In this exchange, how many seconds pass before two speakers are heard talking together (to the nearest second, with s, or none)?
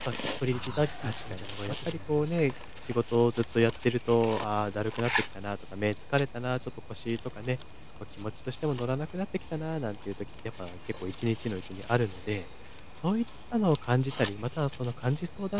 1 s